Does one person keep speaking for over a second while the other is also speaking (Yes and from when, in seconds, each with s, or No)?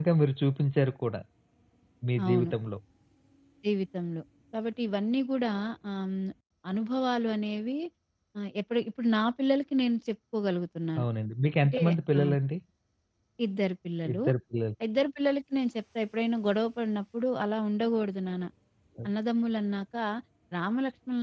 No